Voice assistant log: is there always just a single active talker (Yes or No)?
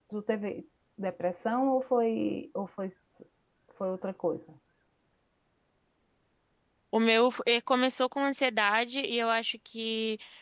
Yes